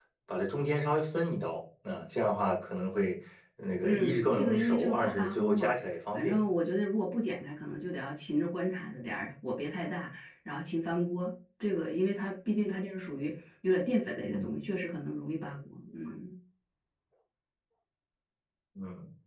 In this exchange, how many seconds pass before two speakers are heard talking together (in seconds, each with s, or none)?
3.8 s